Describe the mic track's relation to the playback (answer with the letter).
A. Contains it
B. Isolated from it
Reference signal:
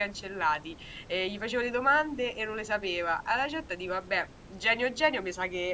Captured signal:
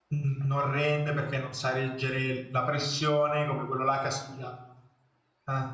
B